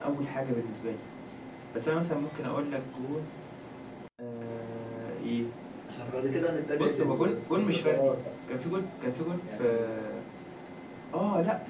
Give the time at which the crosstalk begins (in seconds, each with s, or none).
6.8 s